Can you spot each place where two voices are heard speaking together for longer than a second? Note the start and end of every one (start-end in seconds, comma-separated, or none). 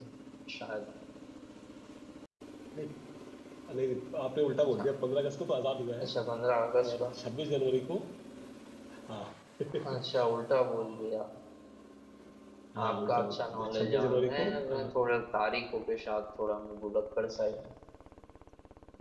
12.8-14.9